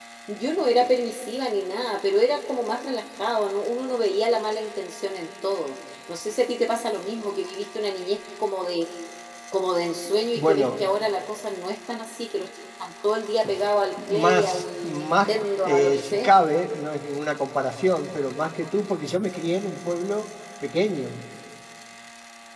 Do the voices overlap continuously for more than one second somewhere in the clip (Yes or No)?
Yes